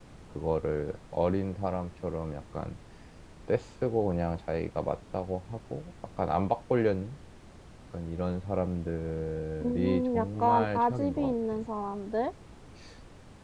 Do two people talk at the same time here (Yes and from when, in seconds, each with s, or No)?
Yes, from 9.6 s